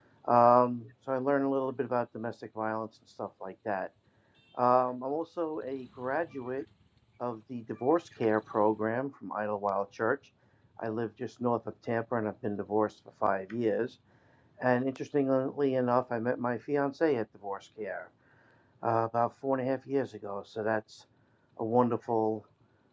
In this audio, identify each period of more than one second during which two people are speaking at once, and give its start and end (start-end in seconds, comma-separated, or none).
none